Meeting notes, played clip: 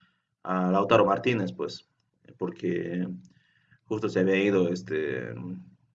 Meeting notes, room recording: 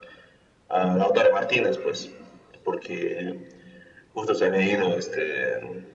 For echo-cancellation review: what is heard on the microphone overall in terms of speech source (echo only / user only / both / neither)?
echo only